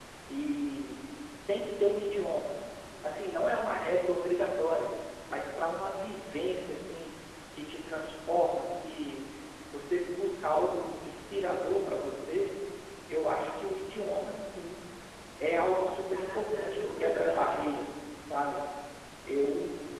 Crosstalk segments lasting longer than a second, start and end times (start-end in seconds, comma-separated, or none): 15.9-17.4